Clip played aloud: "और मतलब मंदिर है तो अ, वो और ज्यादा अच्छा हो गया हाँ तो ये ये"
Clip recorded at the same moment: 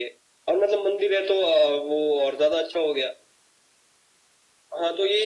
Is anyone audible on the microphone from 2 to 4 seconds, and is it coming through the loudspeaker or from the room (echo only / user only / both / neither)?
echo only